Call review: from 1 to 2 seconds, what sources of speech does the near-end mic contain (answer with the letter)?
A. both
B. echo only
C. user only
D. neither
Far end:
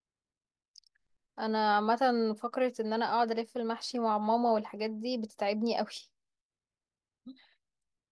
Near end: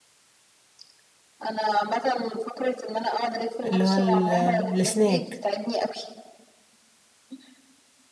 B